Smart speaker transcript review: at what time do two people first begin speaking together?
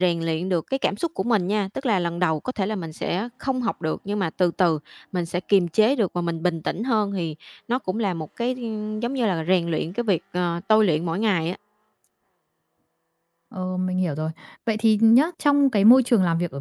none

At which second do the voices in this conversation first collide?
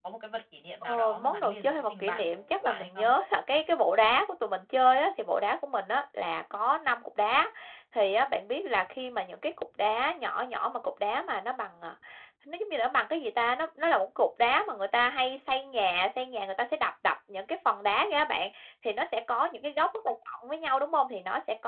0.8 s

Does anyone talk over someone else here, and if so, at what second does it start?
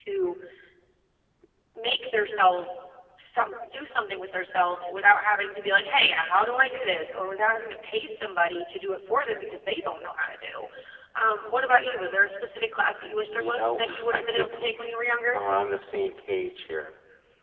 13.4 s

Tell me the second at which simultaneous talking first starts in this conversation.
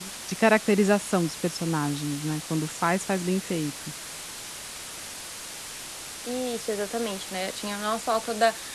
none

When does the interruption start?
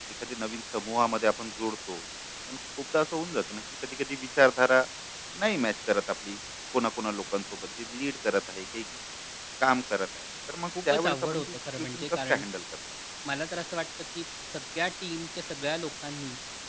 10.8 s

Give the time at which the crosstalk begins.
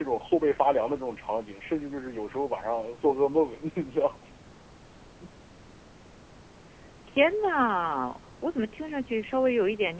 none

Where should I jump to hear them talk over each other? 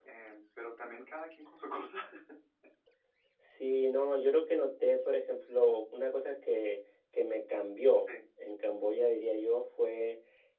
none

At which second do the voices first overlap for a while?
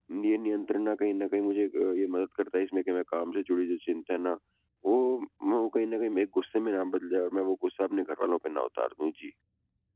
none

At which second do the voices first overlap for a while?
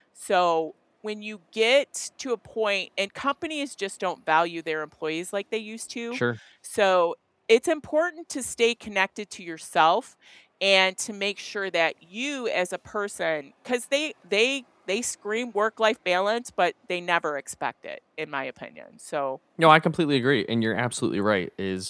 none

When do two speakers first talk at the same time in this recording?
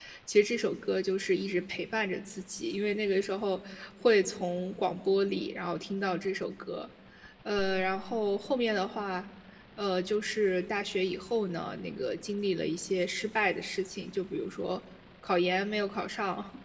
none

